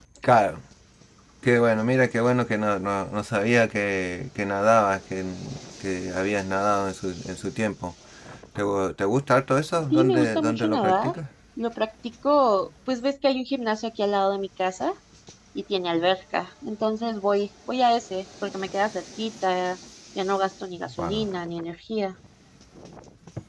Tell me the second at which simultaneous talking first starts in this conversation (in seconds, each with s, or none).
9.9 s